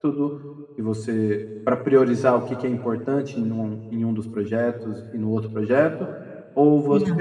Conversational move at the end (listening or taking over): listening